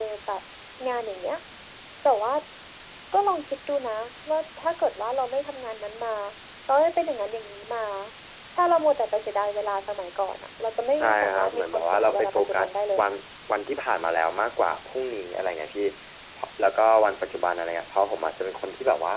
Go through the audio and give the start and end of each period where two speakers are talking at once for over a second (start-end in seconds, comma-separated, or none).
11.0-13.1